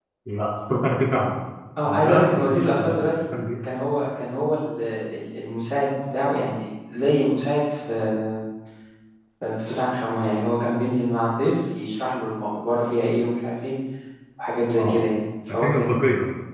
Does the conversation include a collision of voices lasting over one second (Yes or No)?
Yes